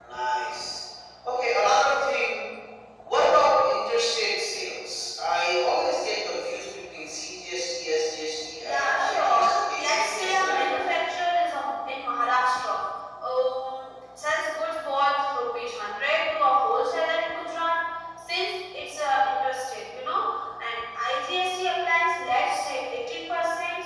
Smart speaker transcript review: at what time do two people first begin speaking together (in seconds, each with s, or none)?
8.6 s